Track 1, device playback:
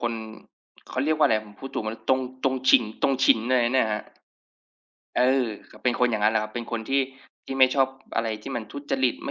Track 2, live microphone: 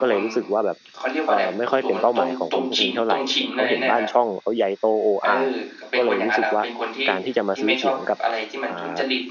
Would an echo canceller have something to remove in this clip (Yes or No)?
Yes